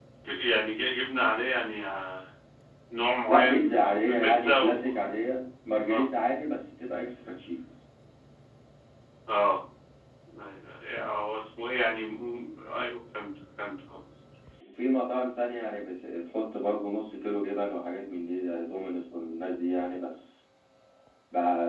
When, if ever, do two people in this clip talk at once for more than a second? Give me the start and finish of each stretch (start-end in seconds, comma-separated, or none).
3.3-4.9